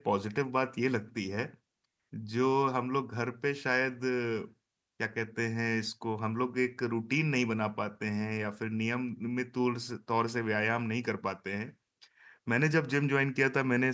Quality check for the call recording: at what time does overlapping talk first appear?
none

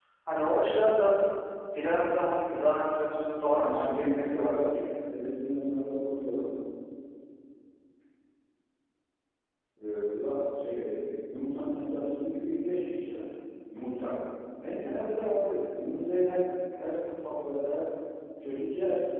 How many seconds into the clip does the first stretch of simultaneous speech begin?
3.4 s

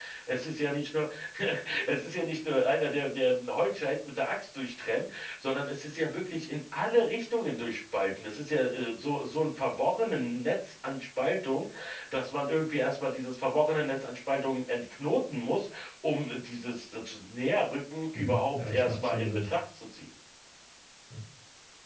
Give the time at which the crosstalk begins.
18.2 s

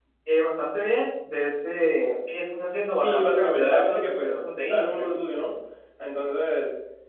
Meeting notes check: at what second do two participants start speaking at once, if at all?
3.0 s

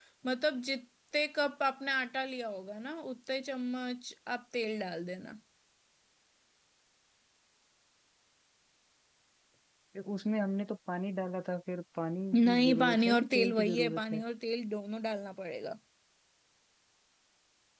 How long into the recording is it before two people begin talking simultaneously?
12.3 s

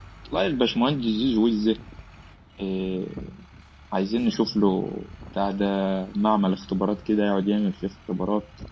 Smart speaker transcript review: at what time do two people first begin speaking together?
none

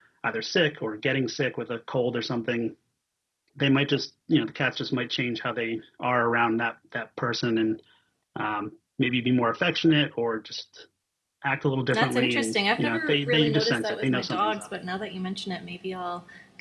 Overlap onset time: 11.9 s

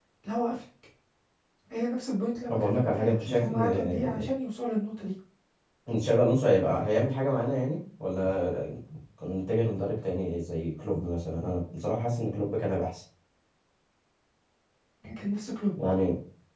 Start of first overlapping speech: 2.5 s

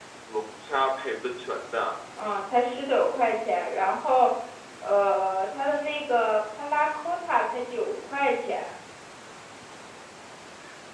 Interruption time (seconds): none

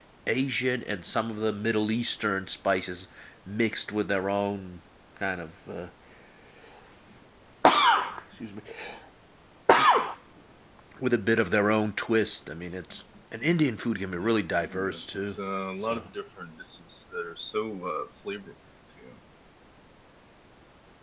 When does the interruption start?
14.1 s

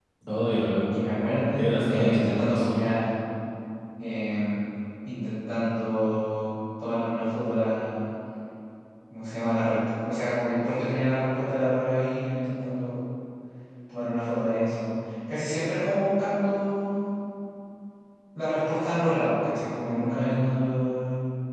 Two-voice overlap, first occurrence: 1.6 s

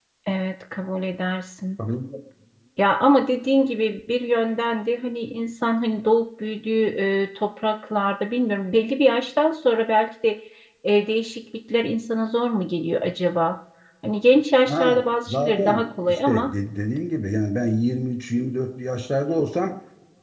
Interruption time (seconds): 14.7 s

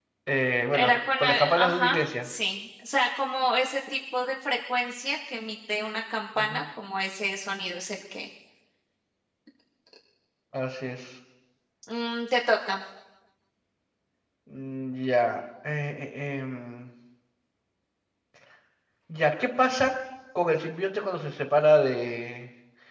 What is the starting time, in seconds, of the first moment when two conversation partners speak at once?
0.7 s

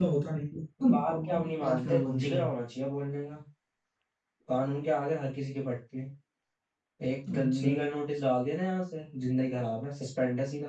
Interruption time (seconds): 0.9 s

